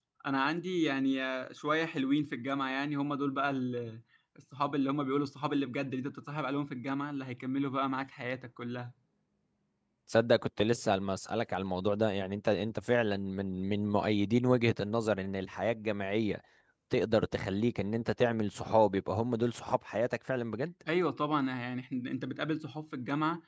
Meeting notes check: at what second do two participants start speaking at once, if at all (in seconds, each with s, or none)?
none